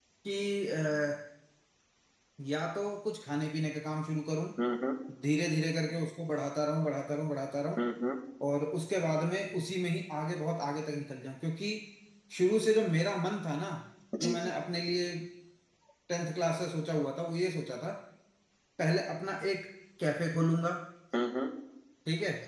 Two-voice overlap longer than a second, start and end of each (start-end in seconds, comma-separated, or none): none